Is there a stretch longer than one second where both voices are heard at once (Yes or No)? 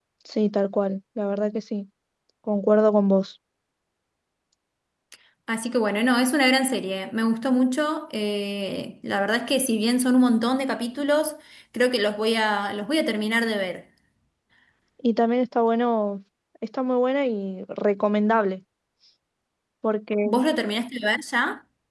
No